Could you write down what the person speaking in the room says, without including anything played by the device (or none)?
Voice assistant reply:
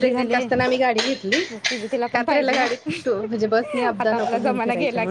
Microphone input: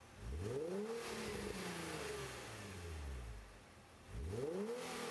none